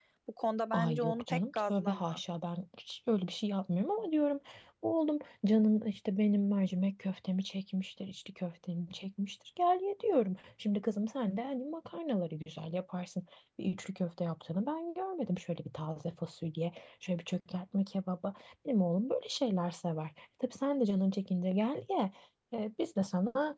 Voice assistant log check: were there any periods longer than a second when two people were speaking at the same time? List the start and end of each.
0.7-2.2

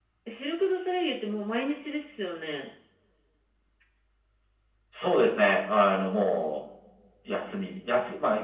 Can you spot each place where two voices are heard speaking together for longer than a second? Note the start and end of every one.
none

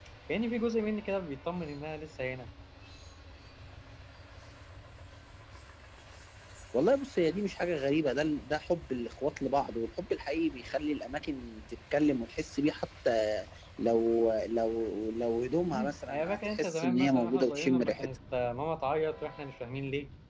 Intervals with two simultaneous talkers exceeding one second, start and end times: 15.7-18.1

